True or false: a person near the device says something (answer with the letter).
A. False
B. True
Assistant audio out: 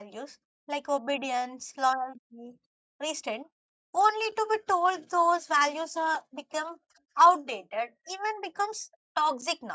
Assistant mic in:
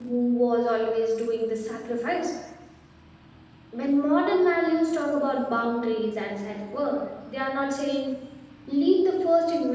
B